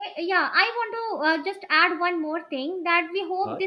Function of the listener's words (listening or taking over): listening